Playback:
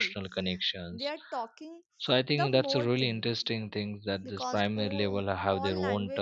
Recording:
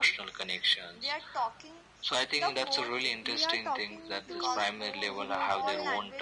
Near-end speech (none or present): present